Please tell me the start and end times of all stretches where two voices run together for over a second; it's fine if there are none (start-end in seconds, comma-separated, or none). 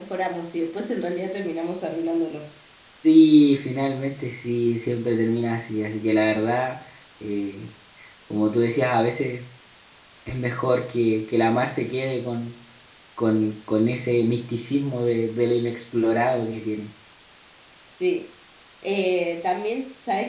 none